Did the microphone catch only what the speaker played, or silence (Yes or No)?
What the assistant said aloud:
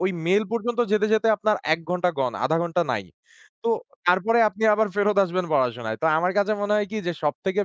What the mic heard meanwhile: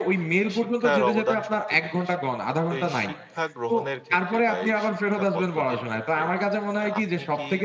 No